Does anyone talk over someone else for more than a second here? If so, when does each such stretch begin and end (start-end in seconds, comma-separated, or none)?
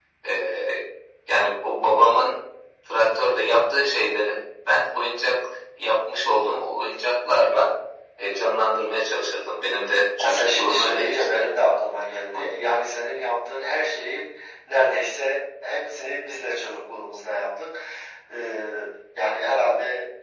10.2-11.4